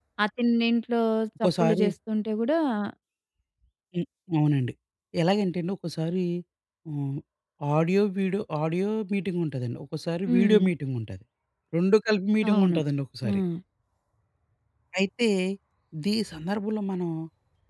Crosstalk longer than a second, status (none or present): none